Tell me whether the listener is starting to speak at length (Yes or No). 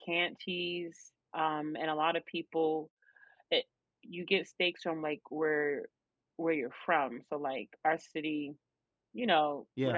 No